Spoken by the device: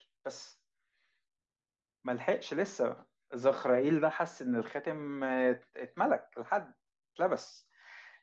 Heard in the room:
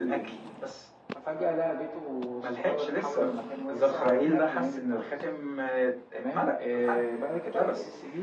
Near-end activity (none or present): present